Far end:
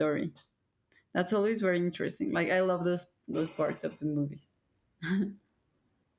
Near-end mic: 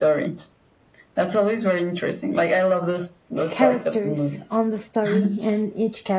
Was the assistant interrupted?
Yes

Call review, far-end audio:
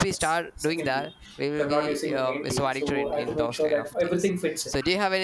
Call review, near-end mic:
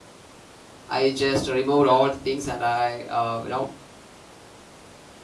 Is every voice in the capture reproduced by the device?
No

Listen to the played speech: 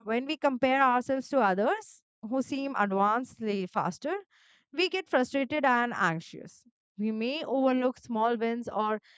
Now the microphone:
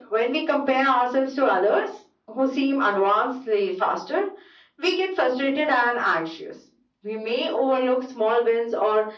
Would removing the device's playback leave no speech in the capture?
Yes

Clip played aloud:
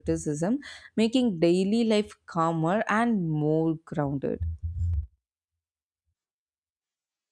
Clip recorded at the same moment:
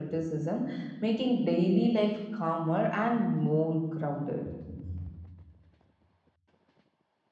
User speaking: No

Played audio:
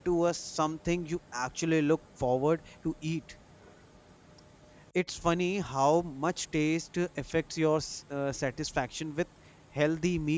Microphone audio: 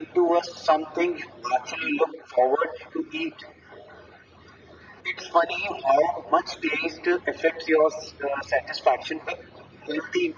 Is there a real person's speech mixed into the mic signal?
No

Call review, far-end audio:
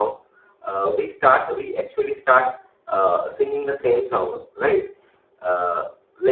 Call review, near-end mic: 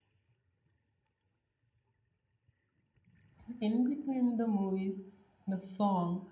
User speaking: Yes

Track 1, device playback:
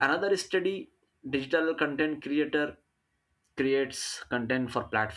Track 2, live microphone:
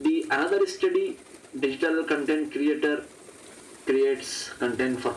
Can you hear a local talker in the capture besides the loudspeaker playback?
No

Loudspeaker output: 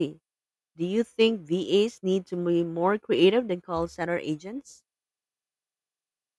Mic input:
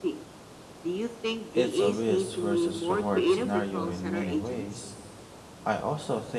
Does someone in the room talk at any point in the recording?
Yes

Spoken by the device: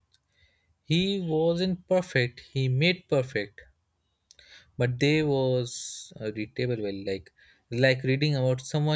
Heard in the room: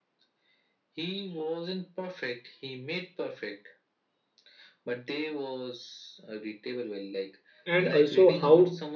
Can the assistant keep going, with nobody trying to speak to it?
No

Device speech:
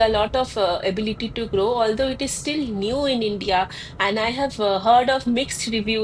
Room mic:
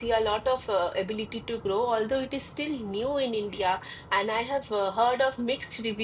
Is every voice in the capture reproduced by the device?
Yes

